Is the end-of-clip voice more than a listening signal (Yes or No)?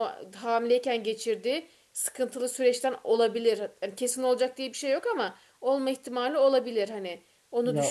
Yes